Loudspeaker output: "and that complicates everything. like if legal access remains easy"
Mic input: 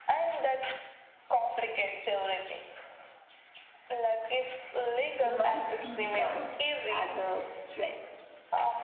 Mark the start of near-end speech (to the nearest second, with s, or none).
5 s